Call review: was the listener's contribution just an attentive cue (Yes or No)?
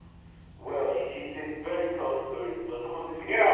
No